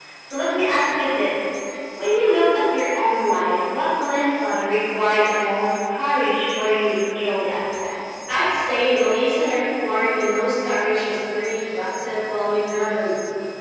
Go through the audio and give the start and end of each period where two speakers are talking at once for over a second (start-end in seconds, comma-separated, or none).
none